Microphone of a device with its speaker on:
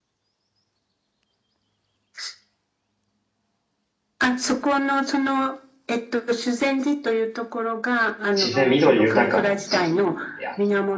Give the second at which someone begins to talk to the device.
8.4 s

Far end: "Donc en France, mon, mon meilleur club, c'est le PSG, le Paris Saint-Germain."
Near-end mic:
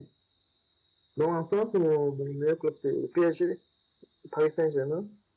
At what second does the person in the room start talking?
none

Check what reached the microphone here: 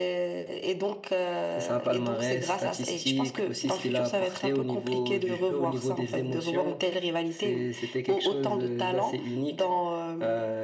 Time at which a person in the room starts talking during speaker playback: none

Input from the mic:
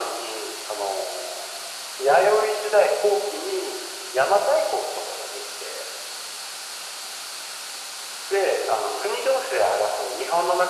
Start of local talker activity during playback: none

